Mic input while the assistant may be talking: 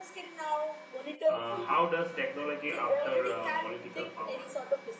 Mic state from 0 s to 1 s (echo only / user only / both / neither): echo only